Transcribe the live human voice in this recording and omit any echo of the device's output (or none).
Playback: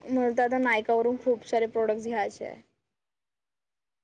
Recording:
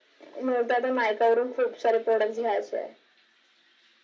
none